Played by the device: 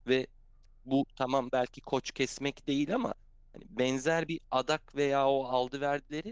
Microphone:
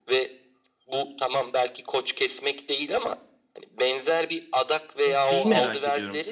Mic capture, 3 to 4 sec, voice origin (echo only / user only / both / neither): echo only